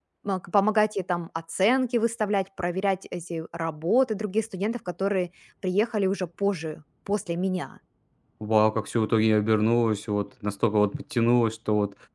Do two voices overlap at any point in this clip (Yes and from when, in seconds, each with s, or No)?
No